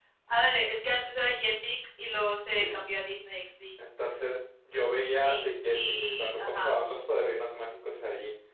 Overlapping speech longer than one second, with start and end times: 5.1-6.7

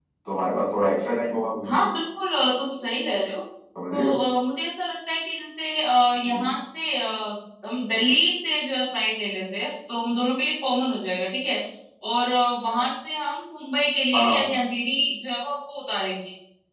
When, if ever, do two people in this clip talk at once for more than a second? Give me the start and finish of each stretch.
none

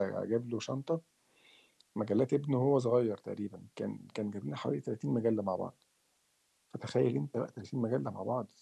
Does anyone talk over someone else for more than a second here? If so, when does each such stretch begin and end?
none

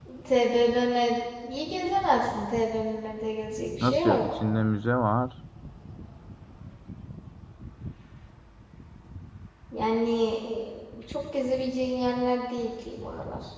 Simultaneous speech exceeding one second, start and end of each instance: none

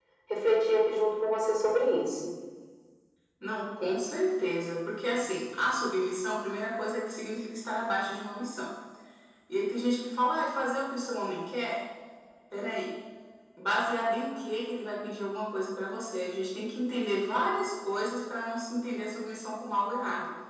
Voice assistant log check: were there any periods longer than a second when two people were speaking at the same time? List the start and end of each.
none

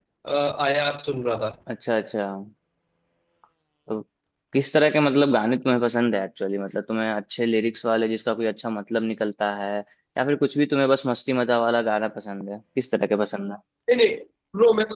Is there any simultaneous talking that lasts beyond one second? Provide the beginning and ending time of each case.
none

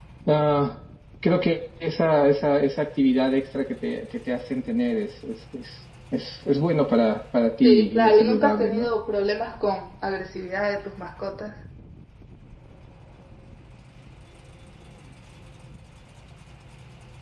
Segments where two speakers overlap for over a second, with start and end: 7.6-8.9

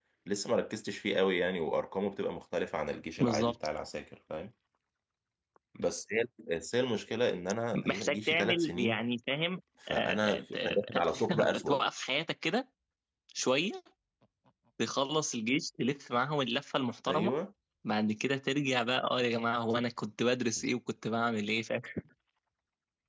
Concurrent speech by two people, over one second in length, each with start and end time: 7.7-9.0, 9.9-11.9

